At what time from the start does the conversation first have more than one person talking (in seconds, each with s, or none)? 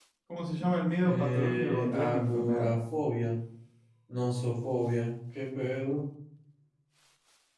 1.0 s